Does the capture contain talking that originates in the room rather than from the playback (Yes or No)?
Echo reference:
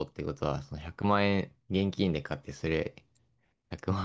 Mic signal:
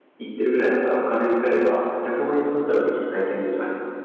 Yes